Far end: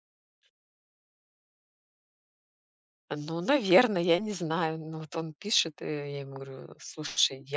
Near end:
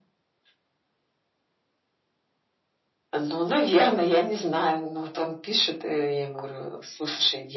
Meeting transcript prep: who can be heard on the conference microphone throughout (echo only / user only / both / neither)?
echo only